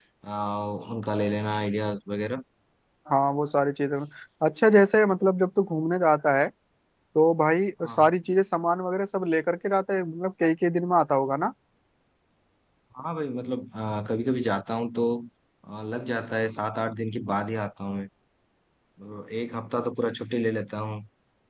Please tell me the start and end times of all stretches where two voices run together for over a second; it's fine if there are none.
none

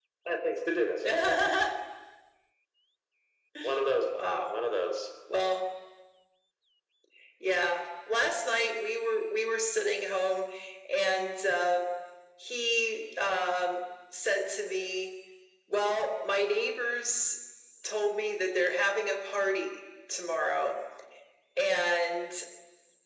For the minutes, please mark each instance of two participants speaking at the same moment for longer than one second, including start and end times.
none

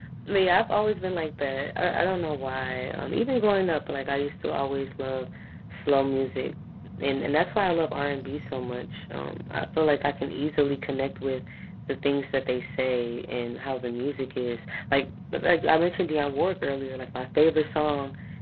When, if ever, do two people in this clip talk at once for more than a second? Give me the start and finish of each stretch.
none

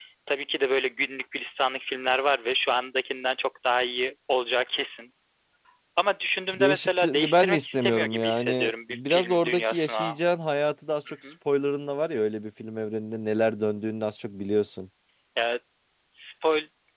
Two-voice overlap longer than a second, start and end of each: 6.5-10.2

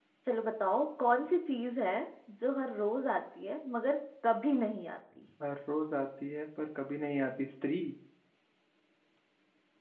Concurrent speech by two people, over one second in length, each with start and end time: none

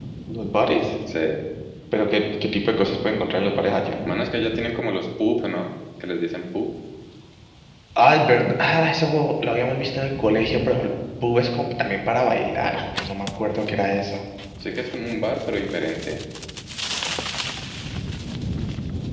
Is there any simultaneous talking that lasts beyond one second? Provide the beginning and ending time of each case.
none

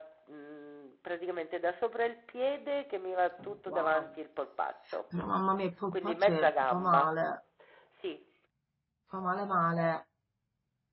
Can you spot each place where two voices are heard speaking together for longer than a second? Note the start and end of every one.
5.9-7.1

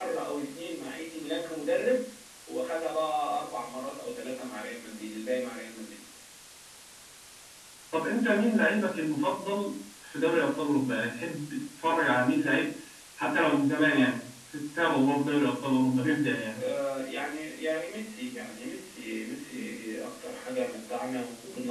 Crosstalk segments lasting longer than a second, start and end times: none

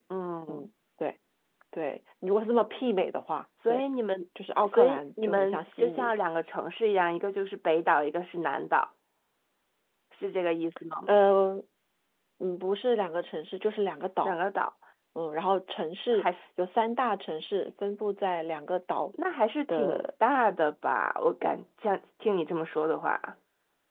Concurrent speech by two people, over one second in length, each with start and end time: 4.6-6.1

